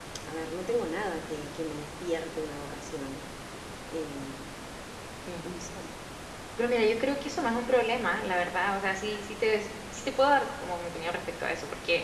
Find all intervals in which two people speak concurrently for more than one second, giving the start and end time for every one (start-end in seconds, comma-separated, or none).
none